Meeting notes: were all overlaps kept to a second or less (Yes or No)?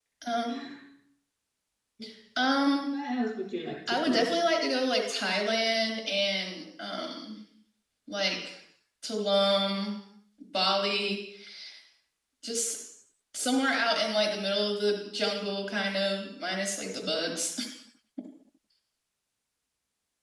Yes